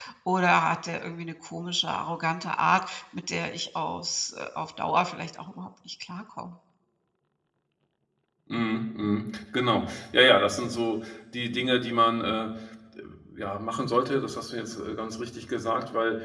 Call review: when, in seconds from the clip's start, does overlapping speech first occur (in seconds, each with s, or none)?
none